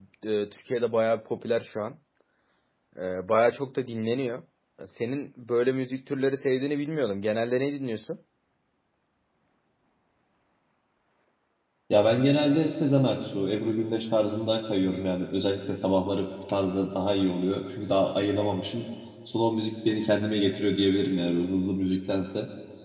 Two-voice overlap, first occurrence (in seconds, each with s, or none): none